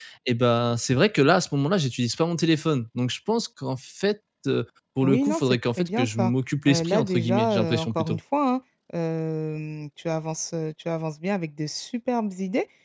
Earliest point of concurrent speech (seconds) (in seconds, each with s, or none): 5.0 s